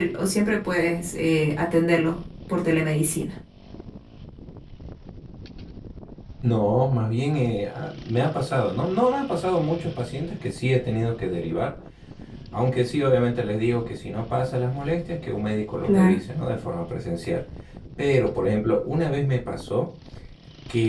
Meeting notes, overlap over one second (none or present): none